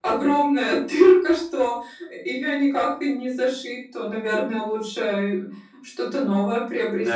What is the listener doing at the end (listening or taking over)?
taking over